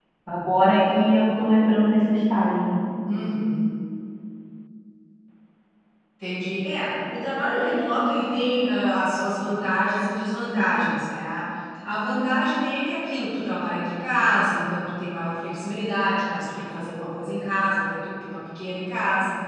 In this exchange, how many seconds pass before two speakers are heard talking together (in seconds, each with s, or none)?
none